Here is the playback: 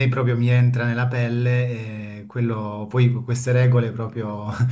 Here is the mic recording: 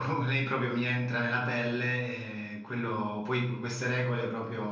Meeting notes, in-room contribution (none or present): none